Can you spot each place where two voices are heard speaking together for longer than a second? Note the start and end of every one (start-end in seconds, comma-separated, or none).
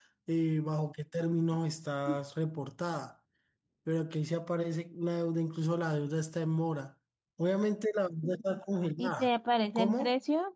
none